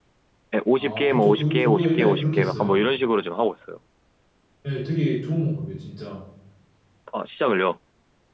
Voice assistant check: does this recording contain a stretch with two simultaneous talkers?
Yes, from 0.8 s

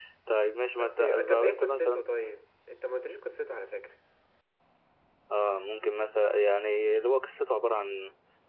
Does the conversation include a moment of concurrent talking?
Yes, from 0.8 s

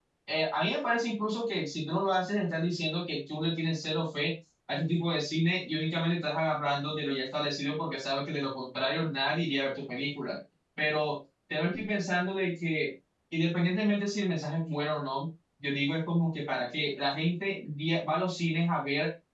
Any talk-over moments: No

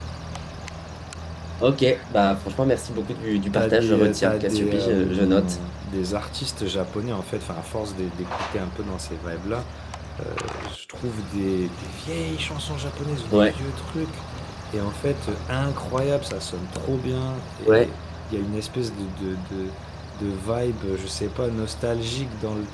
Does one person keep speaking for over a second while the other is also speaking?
Yes, from 3.5 s

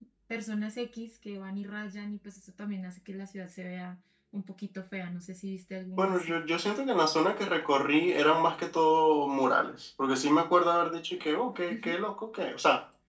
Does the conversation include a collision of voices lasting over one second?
No

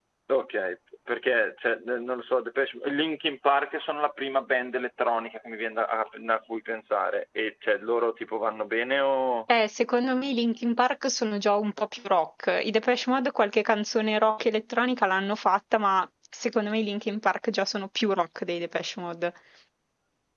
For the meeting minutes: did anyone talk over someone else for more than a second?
No

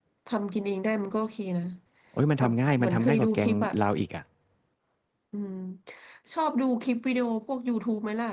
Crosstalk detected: Yes, from 2.4 s

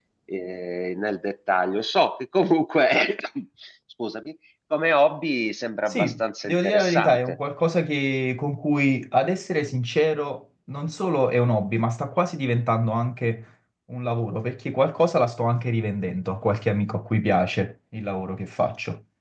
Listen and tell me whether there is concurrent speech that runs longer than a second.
Yes, from 5.9 s

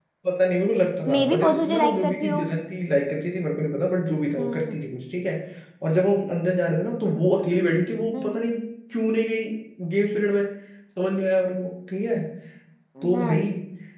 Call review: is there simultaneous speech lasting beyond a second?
Yes, from 1.1 s

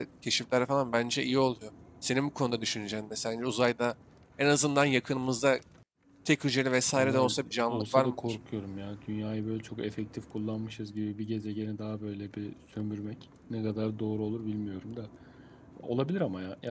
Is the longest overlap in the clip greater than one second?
Yes, from 6.9 s

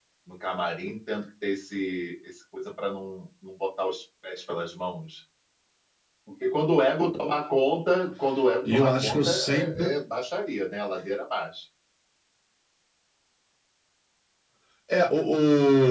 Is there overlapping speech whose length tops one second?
Yes, from 8.6 s

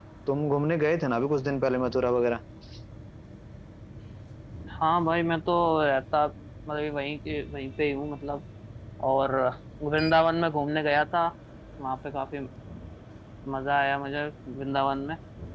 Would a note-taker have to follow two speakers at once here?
No

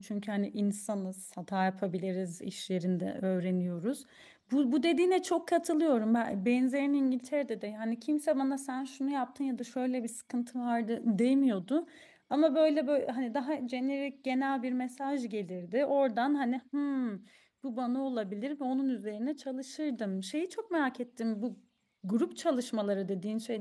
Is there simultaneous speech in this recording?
No

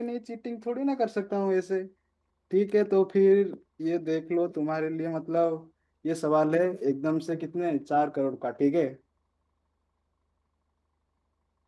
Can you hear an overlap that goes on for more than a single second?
No

